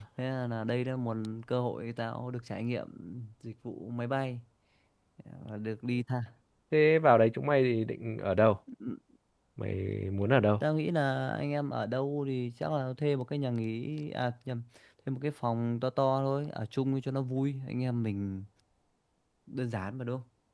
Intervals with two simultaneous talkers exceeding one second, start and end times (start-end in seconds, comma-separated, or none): none